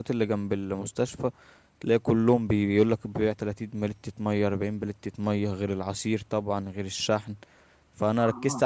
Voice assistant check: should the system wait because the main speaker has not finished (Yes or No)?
Yes